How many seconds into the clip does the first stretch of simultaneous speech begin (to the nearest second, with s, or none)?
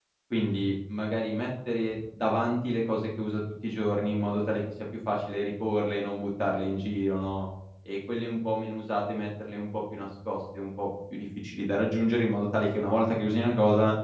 none